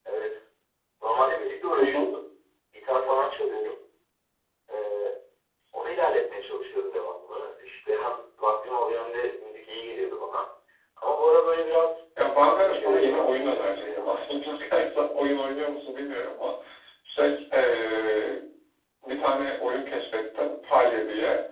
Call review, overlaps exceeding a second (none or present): present